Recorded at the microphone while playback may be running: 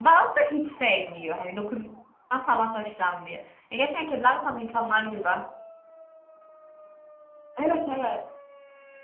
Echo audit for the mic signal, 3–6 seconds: user only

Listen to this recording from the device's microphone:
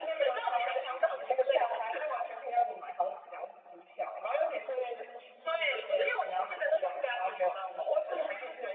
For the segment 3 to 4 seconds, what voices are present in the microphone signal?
echo only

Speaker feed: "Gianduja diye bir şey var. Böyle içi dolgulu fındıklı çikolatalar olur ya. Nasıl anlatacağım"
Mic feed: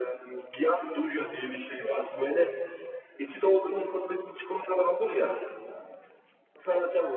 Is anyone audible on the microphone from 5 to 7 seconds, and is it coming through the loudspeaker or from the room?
echo only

